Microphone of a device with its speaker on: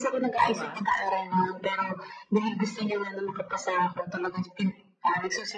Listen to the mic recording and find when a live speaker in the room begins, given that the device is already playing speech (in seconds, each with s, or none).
0.4 s